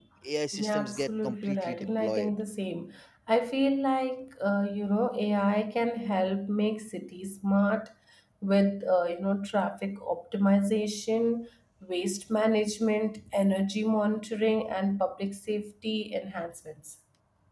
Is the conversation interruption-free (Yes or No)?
No